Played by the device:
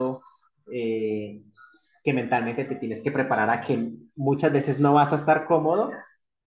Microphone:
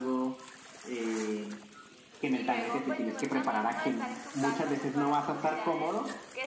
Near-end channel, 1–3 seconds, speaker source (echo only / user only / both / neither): both